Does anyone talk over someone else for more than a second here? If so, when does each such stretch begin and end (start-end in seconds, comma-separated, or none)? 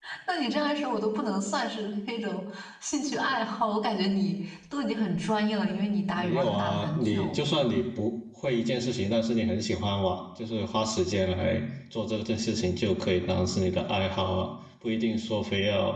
6.1-7.4